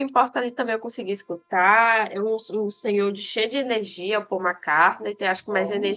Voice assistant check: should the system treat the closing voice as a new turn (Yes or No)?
No